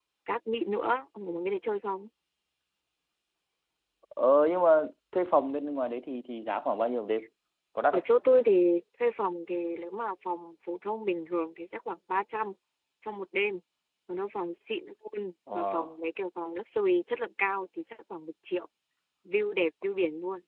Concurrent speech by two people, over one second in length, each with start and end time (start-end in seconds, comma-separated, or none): none